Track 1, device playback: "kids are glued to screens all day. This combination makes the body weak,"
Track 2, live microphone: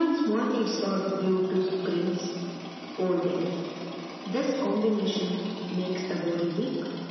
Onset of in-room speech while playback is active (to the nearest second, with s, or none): none